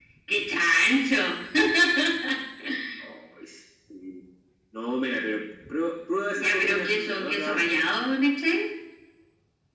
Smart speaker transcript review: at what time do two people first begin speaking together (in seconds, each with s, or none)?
6.4 s